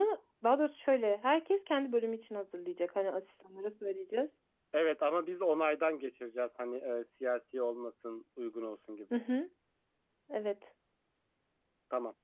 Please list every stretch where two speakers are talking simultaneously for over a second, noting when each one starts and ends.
none

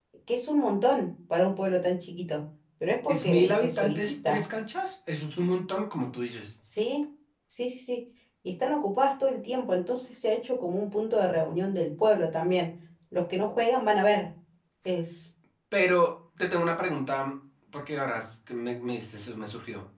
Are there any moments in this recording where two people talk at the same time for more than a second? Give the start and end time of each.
3.1-4.4

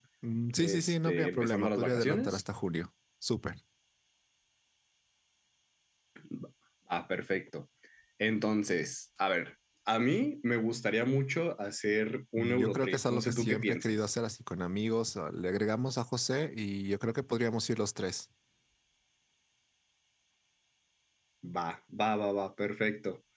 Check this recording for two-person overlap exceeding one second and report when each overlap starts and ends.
0.6-2.4, 12.4-13.9

